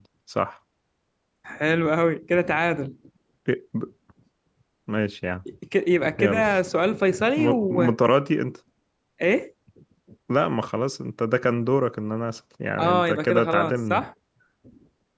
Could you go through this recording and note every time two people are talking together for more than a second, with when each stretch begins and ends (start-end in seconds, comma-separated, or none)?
12.8-14.0